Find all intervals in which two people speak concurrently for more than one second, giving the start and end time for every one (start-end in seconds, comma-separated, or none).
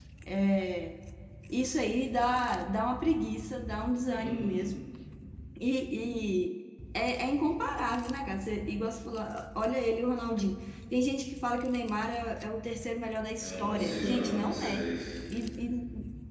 13.4-14.9